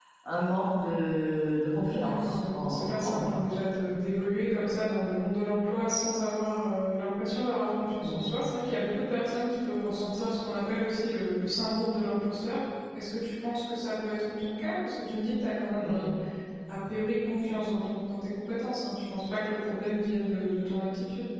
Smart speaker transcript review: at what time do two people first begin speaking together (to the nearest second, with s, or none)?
2 s